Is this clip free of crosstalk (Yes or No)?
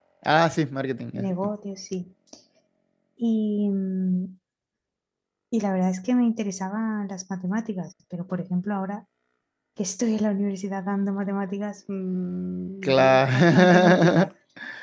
No